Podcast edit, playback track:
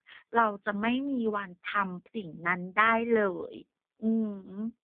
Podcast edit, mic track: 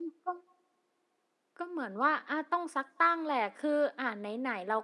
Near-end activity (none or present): present